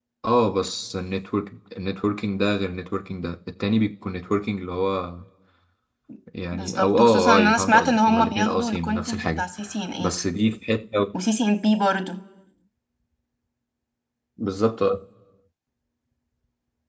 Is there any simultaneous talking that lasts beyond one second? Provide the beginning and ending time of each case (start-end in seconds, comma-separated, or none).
6.5-9.4